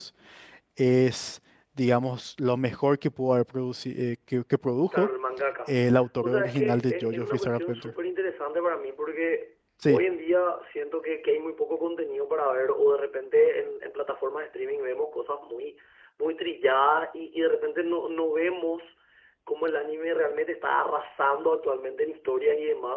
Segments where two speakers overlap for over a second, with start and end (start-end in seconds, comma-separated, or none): 6.2-7.9